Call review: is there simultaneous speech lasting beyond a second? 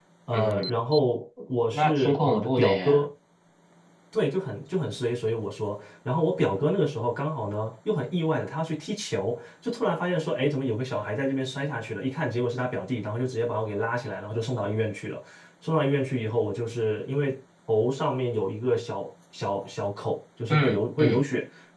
Yes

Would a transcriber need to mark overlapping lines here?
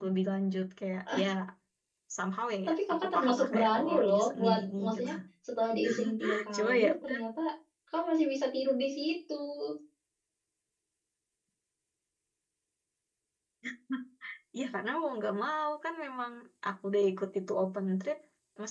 Yes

